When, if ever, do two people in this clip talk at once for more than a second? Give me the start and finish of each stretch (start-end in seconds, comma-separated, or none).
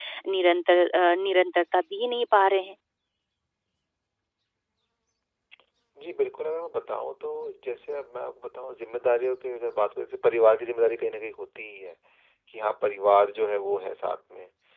none